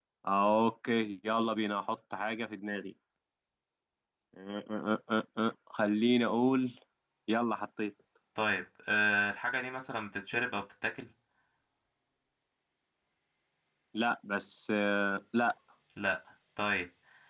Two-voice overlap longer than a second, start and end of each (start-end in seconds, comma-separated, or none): none